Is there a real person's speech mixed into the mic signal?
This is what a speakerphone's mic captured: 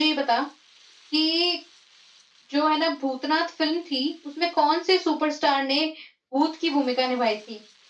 No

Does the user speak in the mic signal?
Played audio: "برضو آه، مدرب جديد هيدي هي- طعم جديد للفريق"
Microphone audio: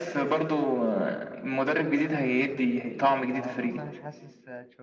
Yes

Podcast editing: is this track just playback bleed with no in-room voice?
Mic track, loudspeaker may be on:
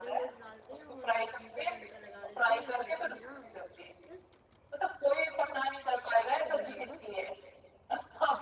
No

